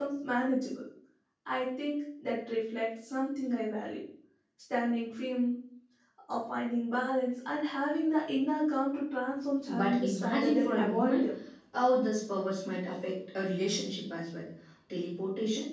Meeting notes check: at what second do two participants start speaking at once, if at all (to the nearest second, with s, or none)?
10 s